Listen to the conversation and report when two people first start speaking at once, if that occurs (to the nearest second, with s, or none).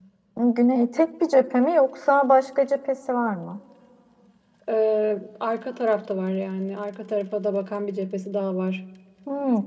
none